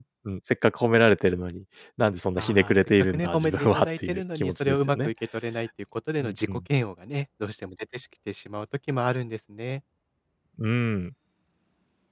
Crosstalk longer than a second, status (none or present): present